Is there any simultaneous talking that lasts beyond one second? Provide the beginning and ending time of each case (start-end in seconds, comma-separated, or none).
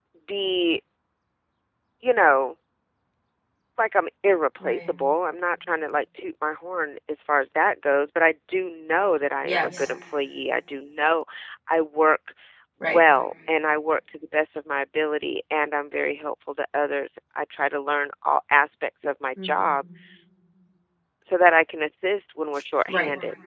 none